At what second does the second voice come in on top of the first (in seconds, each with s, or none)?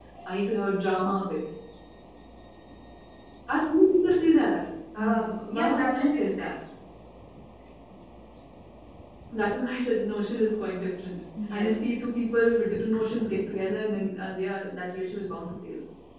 5.0 s